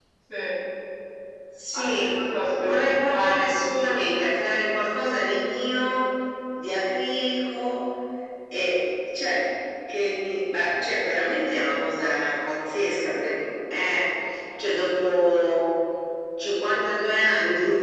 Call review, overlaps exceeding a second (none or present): present